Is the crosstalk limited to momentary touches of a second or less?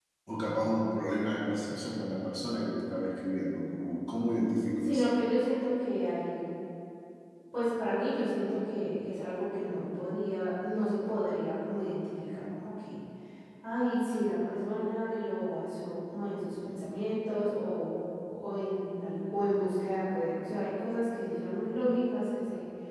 Yes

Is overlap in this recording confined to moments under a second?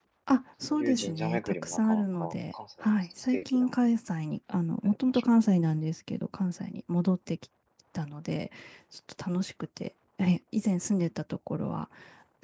No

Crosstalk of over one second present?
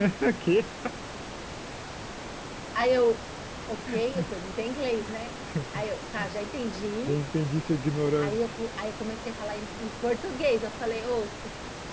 No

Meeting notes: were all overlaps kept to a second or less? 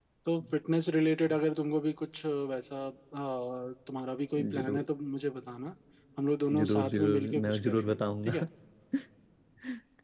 No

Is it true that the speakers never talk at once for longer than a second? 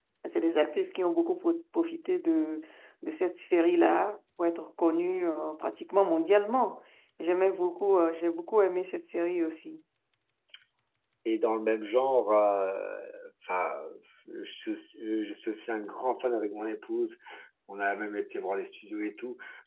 Yes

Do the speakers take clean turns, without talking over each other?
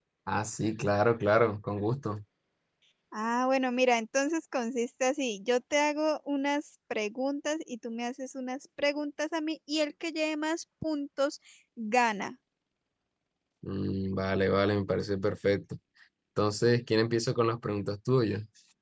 Yes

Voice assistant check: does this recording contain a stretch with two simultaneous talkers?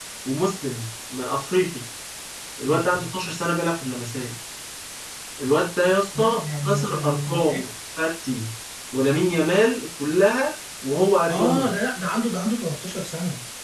Yes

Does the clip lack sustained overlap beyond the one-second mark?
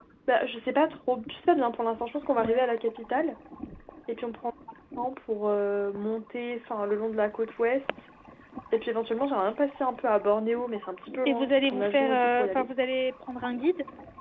No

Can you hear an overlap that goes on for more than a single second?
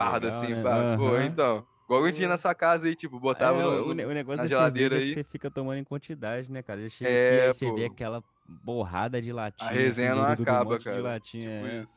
Yes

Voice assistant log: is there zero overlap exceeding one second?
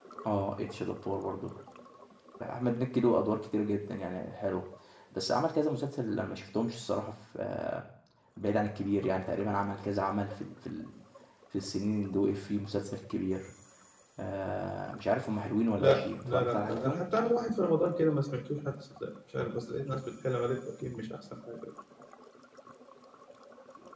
No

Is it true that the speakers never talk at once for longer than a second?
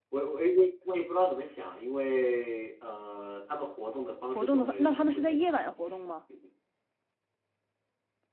No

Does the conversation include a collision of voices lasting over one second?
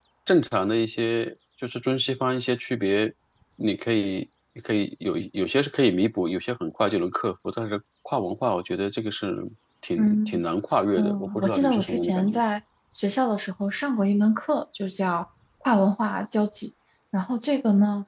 Yes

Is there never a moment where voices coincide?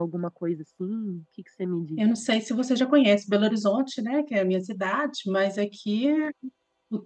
Yes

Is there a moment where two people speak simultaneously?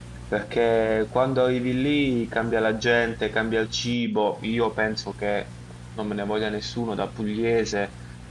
No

